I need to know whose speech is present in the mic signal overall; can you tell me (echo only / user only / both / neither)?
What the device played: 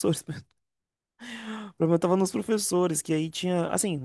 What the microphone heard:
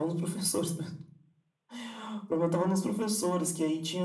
echo only